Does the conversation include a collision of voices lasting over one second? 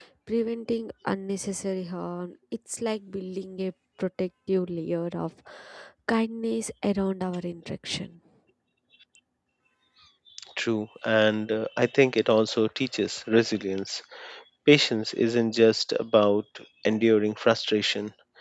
No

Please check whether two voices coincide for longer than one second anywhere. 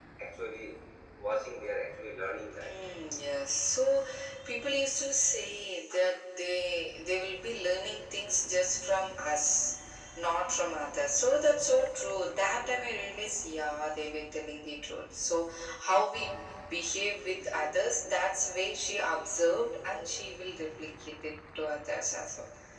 No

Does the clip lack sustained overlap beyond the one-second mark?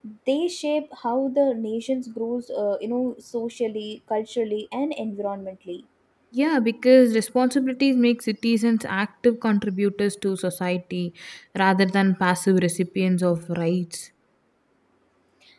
Yes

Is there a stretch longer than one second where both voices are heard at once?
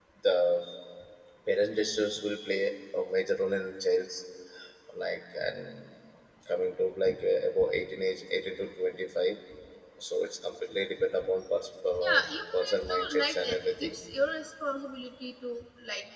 Yes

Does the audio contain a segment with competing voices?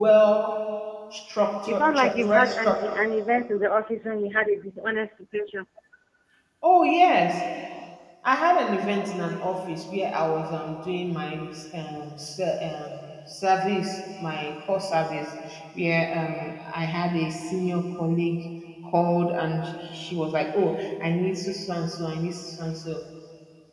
Yes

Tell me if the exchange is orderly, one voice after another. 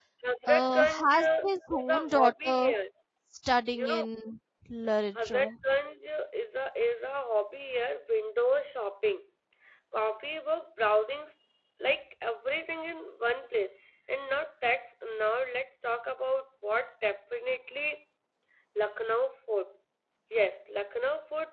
No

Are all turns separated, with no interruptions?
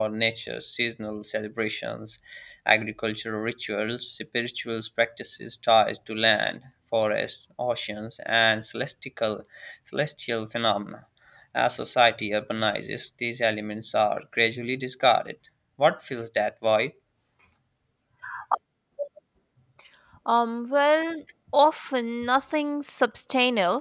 Yes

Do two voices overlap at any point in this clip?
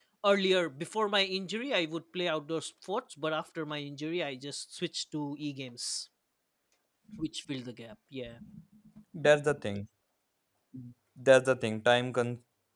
No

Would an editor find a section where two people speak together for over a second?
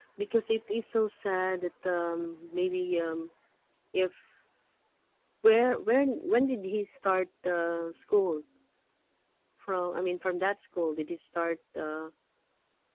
No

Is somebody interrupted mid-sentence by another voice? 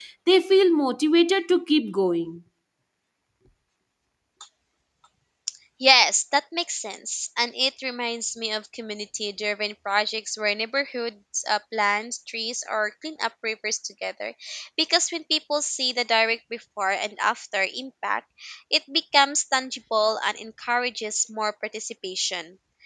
No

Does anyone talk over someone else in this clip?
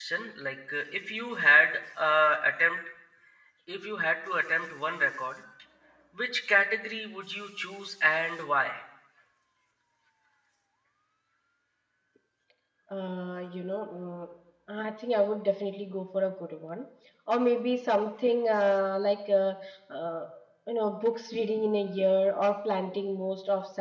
No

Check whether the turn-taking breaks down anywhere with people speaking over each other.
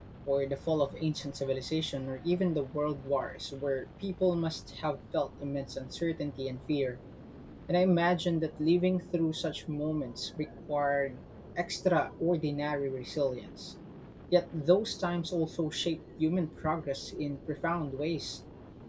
No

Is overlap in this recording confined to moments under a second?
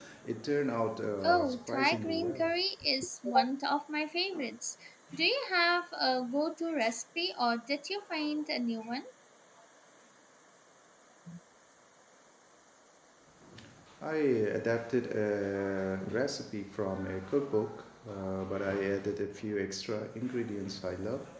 No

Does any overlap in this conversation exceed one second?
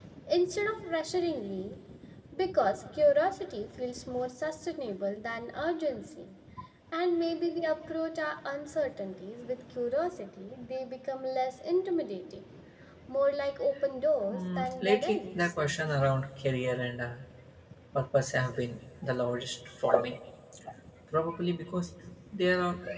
Yes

